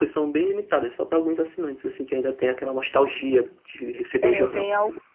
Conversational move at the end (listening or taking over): taking over